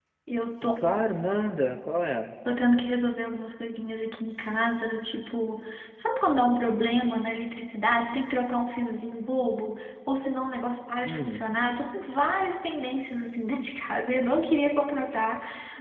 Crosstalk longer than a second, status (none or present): none